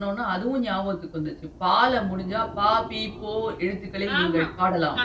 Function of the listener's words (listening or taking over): taking over